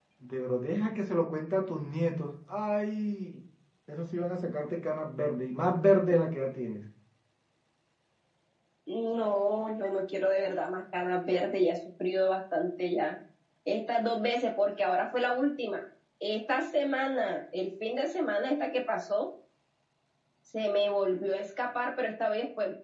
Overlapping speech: No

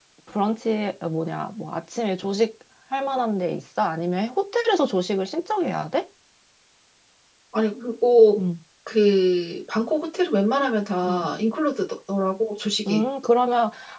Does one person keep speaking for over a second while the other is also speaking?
No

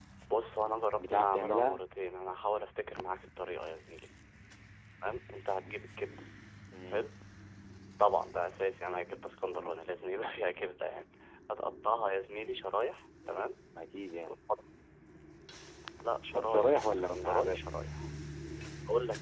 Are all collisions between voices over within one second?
No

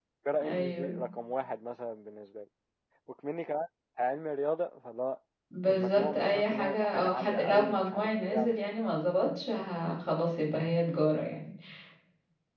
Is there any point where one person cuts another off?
Yes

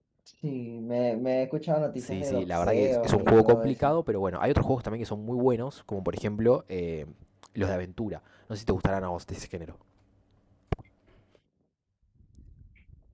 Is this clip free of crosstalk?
No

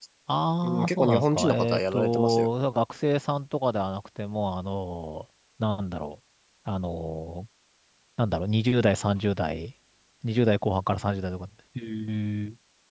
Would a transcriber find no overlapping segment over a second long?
No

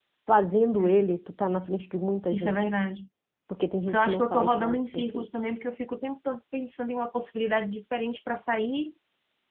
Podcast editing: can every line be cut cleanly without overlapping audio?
No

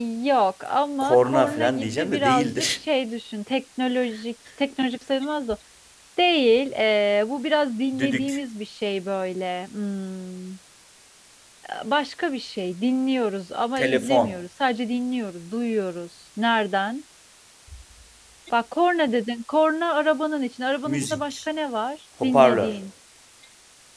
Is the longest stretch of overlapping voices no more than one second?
No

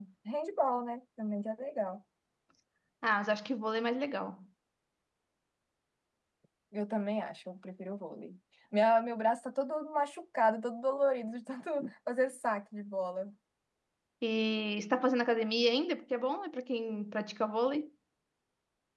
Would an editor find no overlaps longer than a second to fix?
Yes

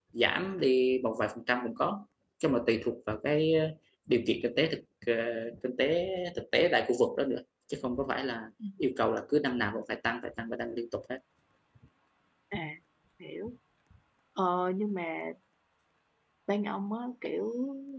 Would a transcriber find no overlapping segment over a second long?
Yes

